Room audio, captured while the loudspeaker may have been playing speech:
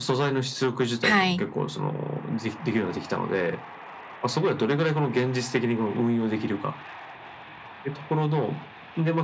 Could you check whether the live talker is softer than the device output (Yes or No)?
No